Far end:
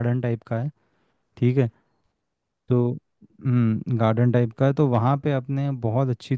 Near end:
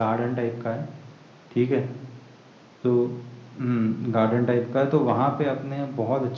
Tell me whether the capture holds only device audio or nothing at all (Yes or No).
Yes